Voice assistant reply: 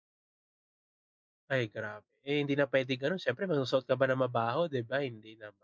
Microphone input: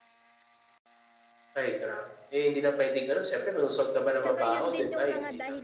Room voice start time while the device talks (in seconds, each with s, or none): 4.2 s